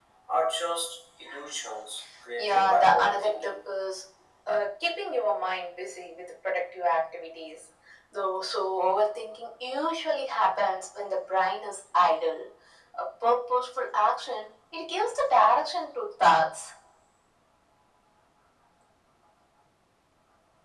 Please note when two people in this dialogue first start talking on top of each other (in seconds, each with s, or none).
2.4 s